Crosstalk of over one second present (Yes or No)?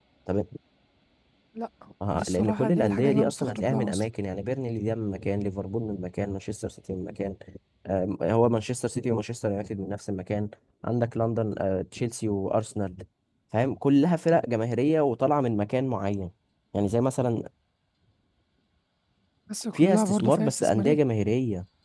Yes